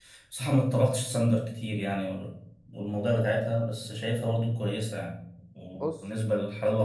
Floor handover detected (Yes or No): No